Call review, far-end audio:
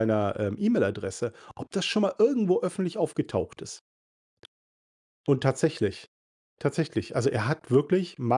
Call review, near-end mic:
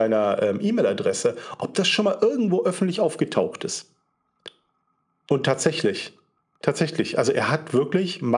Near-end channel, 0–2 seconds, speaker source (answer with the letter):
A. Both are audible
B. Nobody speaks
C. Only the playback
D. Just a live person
C